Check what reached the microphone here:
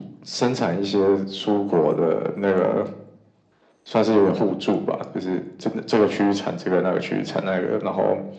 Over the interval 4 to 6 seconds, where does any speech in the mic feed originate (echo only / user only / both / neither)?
echo only